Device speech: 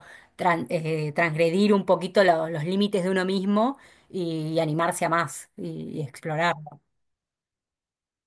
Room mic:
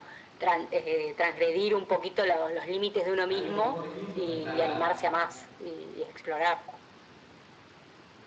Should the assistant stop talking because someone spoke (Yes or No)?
Yes